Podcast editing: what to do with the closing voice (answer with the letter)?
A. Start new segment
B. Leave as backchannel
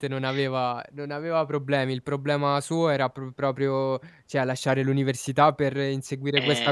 B